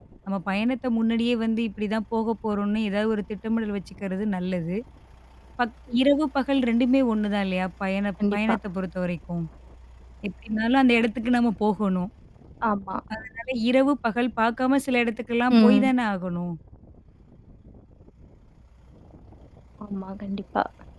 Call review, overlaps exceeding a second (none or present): none